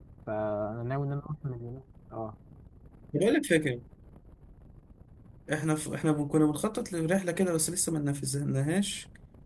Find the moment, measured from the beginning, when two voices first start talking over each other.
none

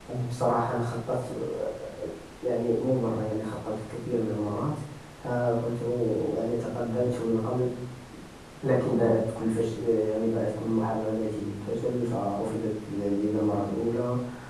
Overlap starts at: none

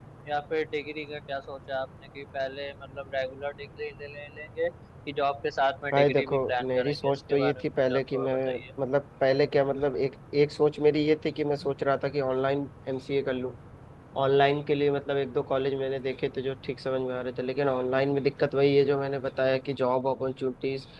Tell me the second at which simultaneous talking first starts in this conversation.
5.9 s

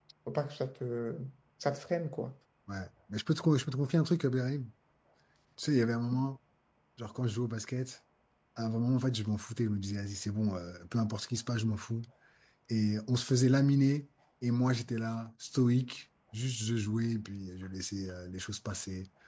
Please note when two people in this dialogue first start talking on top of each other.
none

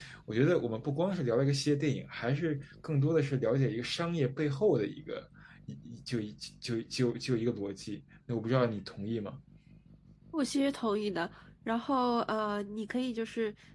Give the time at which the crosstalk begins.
none

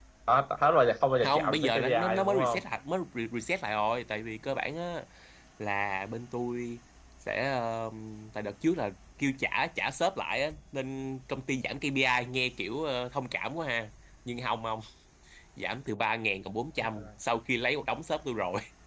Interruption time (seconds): 1.2 s

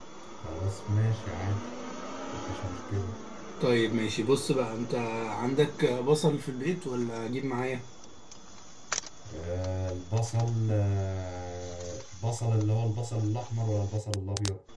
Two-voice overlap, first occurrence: none

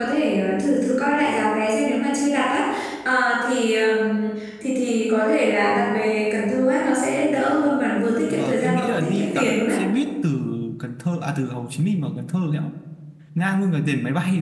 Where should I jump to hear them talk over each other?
8.3 s

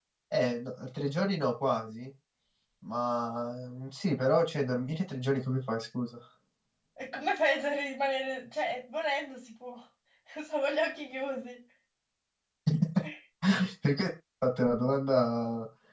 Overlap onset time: none

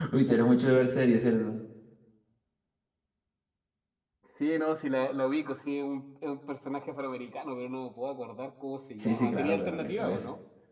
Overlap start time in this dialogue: 9.0 s

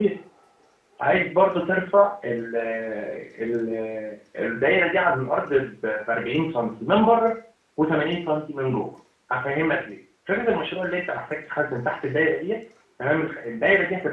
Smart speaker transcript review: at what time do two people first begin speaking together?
none

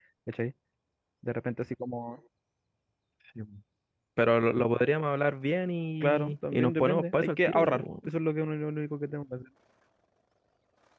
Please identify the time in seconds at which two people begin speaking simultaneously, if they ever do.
6.0 s

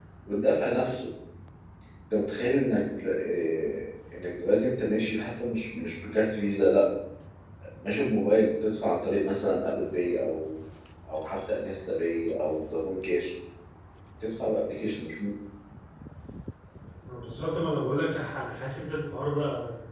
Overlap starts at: none

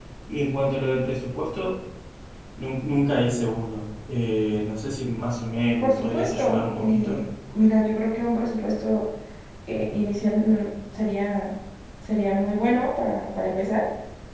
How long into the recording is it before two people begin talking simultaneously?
5.8 s

